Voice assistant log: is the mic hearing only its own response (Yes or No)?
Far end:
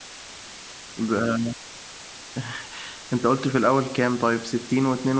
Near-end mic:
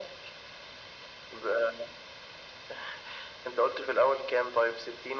Yes